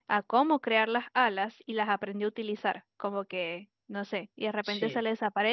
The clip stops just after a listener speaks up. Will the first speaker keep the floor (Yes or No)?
Yes